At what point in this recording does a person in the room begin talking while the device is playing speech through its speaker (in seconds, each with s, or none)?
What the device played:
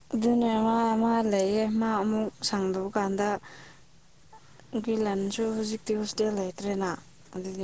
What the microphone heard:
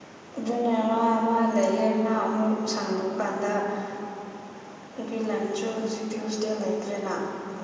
none